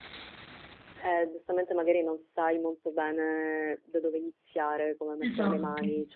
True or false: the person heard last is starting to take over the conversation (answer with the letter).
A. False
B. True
A